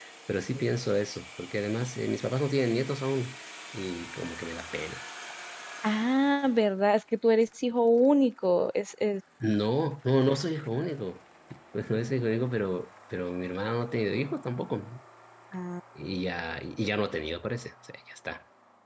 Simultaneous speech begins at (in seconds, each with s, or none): none